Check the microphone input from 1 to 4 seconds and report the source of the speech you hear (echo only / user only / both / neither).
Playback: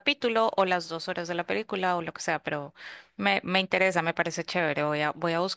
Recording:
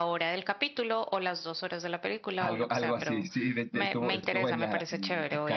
both